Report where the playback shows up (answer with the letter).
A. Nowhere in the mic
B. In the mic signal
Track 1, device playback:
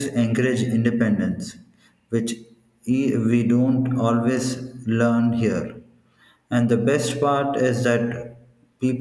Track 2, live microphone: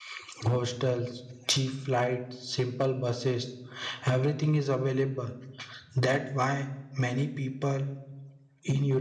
A